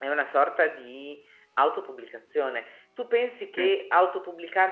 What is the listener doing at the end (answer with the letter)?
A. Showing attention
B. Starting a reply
A